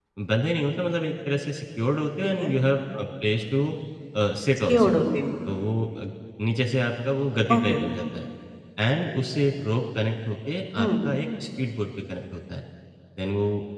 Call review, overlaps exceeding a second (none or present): none